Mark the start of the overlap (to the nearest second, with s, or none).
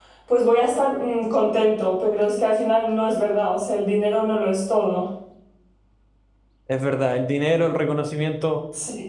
none